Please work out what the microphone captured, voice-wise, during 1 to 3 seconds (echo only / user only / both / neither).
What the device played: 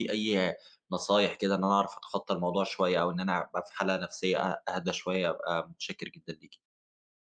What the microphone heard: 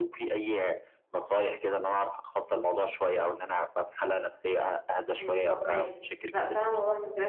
echo only